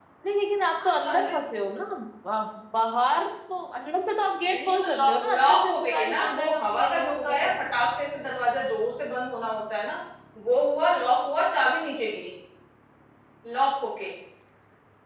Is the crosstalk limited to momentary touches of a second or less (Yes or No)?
No